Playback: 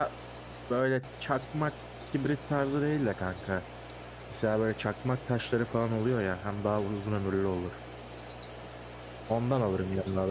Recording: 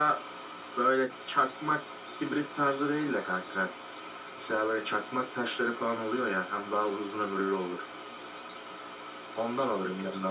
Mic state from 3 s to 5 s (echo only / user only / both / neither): echo only